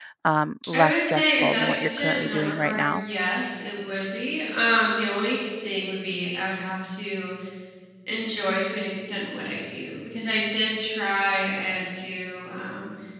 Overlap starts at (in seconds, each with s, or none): 0.7 s